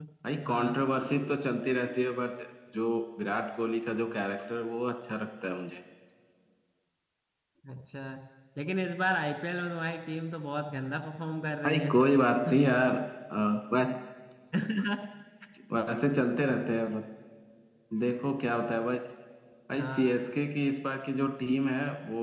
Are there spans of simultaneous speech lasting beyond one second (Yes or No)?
No